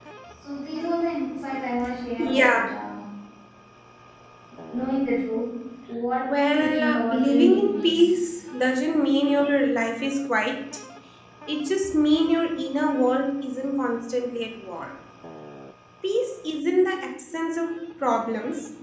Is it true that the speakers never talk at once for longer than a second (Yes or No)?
No